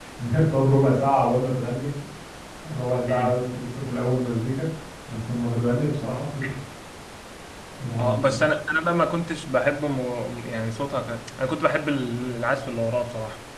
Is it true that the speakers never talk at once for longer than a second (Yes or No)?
Yes